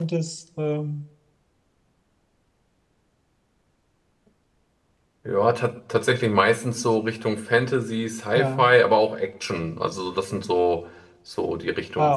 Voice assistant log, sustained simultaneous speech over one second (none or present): none